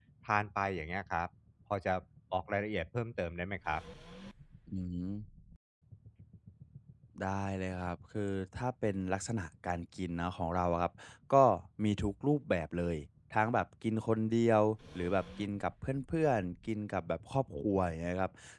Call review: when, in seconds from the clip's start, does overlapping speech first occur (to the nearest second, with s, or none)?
none